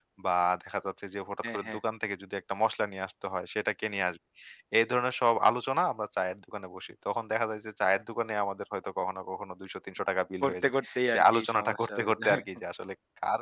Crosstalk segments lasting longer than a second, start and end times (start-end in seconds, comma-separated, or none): 10.4-12.4